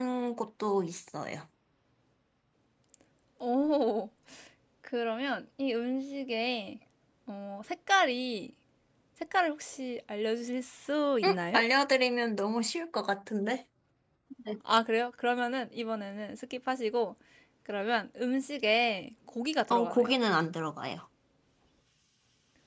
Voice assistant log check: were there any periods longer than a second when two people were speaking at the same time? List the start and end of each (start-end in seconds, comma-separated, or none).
none